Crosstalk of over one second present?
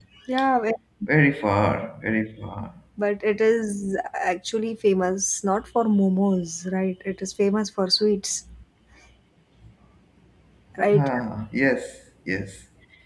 No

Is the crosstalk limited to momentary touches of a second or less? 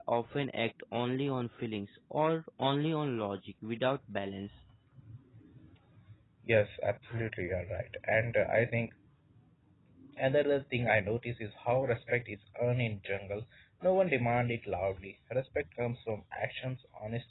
Yes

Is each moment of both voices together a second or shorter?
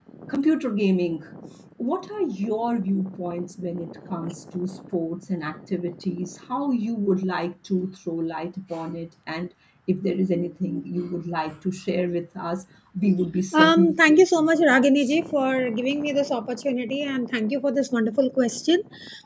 No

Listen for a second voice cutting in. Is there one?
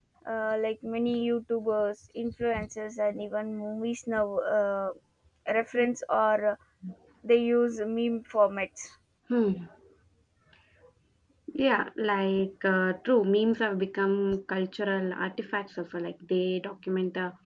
No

